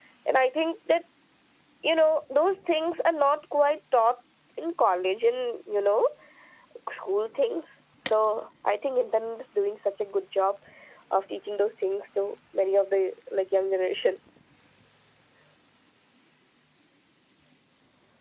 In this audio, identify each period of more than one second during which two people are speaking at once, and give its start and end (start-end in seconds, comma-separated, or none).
none